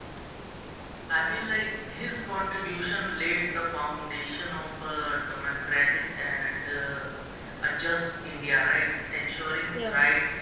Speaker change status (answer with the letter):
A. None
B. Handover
A